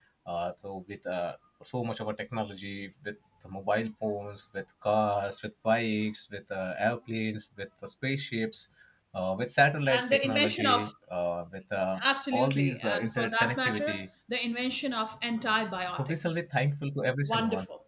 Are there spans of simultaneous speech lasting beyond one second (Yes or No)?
Yes